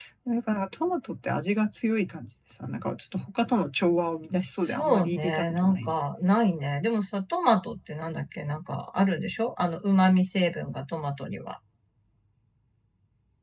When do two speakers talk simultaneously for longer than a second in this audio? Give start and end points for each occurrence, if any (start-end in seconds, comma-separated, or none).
4.6-6.0